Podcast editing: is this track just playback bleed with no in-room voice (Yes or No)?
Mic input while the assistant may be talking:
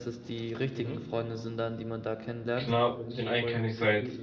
No